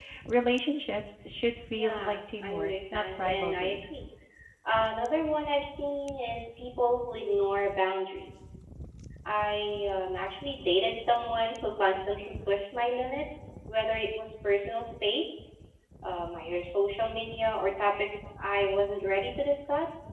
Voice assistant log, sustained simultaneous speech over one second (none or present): present